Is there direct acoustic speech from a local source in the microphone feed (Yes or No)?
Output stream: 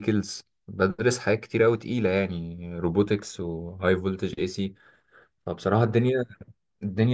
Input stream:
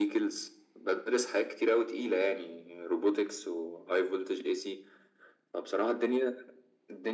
No